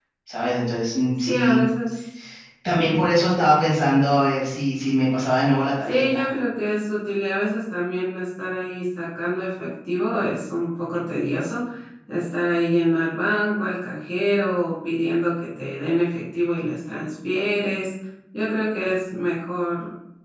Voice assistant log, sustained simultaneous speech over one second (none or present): none